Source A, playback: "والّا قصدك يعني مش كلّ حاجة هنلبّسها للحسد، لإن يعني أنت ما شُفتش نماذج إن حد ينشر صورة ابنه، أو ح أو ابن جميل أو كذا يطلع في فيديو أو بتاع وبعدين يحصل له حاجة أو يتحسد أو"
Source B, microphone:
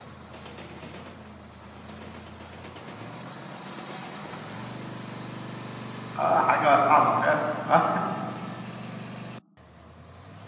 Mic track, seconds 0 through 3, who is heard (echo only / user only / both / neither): neither